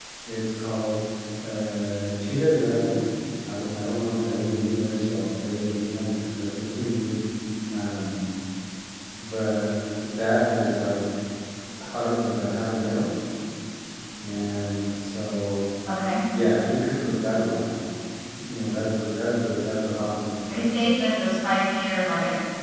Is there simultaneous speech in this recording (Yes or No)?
No